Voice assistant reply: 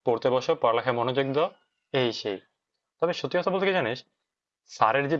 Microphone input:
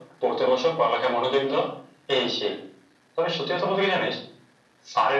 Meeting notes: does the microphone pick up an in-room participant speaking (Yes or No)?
No